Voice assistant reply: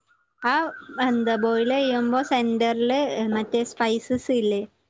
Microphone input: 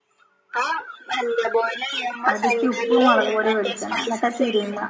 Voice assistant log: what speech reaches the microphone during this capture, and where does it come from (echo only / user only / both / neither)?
both